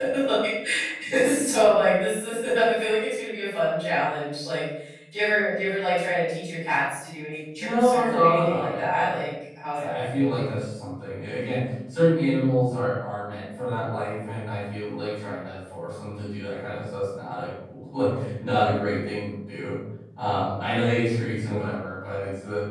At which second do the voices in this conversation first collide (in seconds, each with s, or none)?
7.6 s